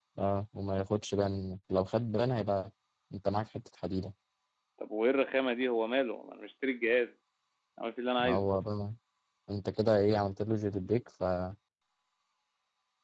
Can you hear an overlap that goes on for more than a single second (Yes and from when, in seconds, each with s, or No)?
No